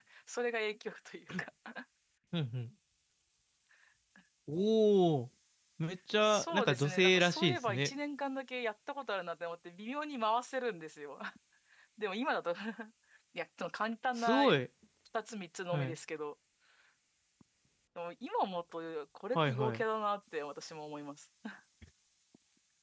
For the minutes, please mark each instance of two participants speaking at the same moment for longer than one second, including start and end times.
6.2-7.9

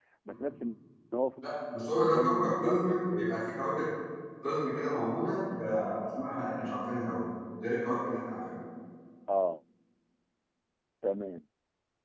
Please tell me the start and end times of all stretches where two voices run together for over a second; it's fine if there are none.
2.0-3.5

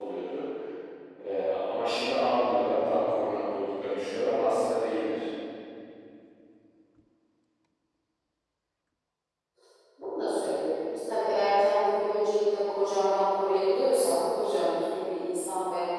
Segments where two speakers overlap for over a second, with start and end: none

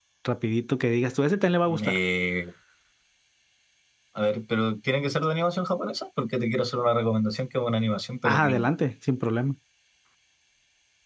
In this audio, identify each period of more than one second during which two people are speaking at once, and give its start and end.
none

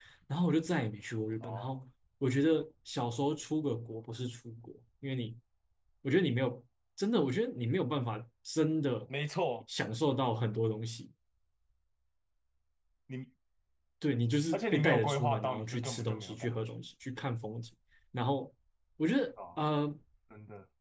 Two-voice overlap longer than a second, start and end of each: 14.5-16.6

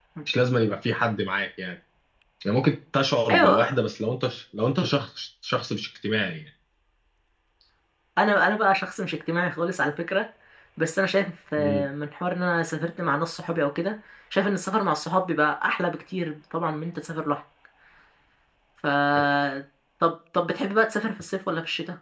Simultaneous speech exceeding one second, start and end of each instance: none

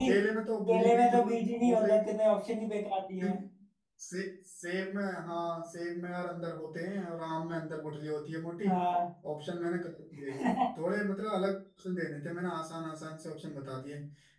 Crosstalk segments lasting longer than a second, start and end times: 0.7-2.1

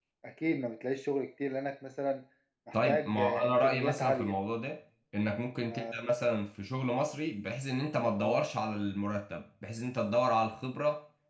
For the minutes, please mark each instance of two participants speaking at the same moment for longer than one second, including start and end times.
2.7-4.3

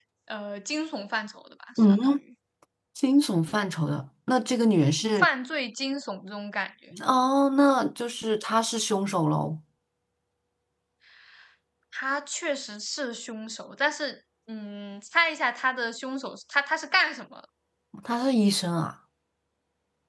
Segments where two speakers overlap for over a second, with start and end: none

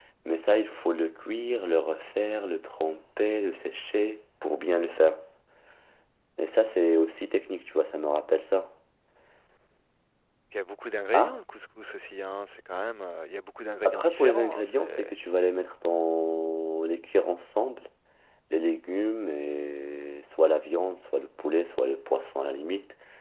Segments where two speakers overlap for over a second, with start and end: 13.8-15.2

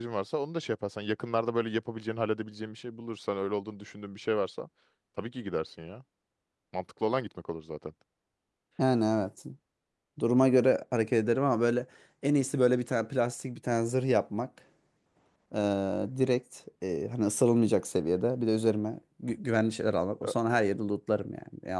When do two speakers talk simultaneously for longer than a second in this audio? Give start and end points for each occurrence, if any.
none

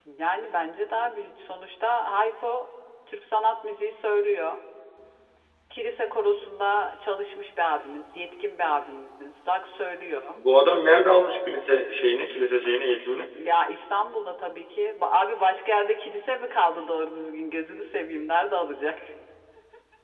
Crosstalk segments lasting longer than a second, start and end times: none

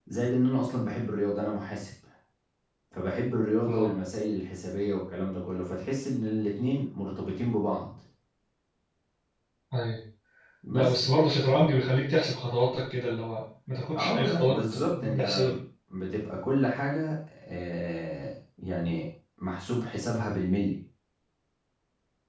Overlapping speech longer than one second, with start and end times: 14.0-15.4

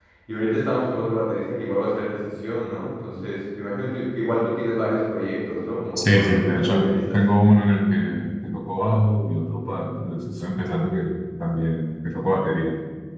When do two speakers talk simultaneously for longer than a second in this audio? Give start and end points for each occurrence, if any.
6.0-7.2

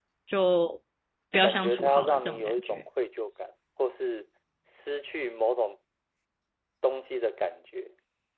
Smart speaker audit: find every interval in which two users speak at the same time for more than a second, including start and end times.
1.4-2.8

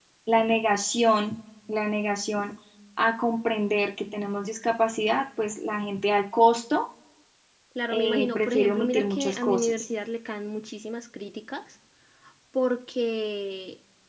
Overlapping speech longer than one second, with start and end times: 7.9-9.9

